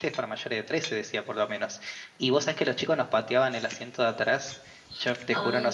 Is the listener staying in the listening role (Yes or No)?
Yes